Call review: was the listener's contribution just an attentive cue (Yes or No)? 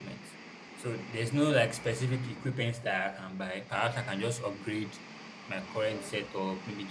Yes